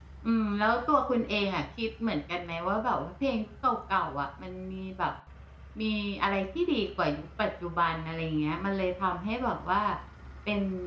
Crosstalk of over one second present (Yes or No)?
No